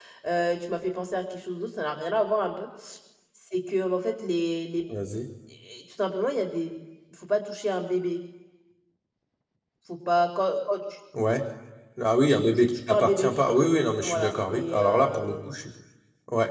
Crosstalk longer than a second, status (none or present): present